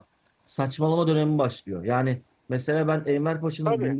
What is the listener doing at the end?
listening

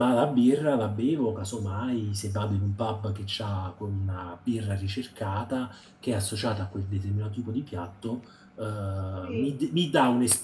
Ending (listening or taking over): listening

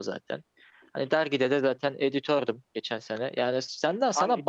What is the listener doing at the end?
listening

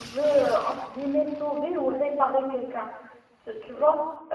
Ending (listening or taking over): listening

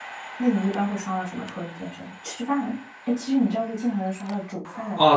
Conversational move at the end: taking over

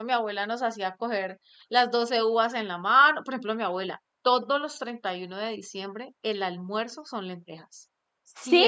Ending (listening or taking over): listening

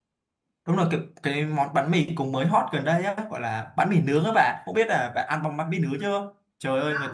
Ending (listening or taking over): listening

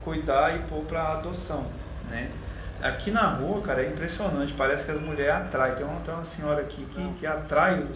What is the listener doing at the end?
listening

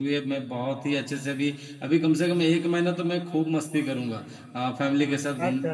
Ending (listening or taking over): listening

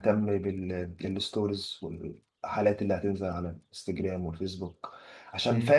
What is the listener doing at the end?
listening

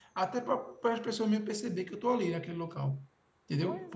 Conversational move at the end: listening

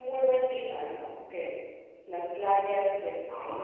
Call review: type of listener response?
taking over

